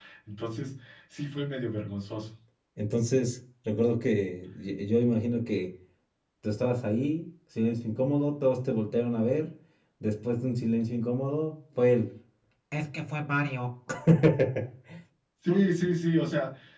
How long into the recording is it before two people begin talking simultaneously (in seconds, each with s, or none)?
none